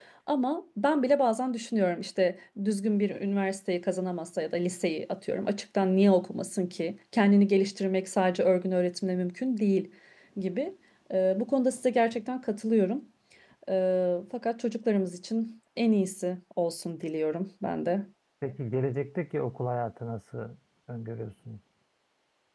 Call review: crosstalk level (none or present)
none